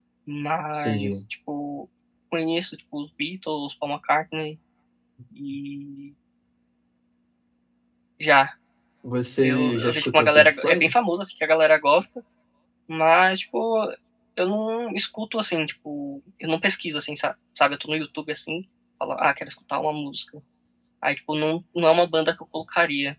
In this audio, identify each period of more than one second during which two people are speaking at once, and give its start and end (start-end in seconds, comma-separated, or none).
9.4-10.9